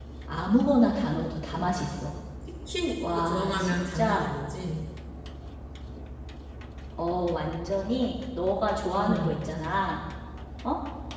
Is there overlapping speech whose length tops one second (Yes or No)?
Yes